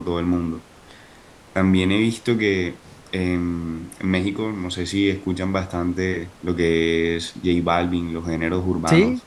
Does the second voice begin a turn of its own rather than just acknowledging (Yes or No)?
No